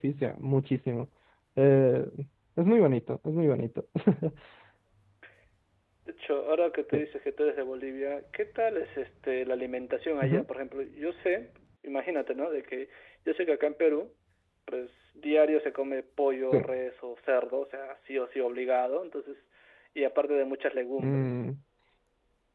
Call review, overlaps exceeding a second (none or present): none